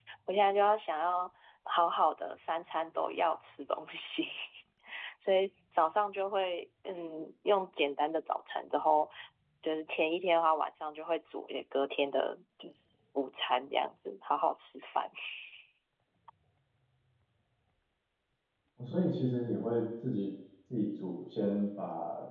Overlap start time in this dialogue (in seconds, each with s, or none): none